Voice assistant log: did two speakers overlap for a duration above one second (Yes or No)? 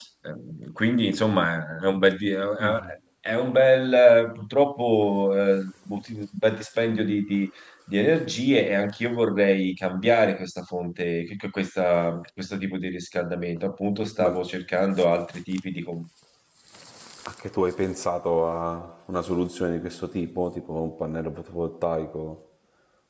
No